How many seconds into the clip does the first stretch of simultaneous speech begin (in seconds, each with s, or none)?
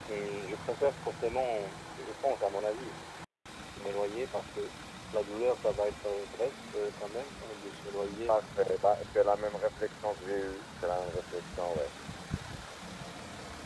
none